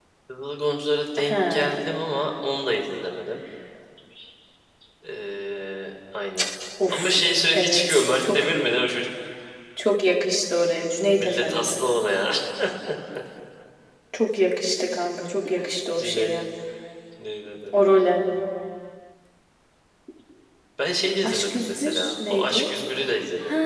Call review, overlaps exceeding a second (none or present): present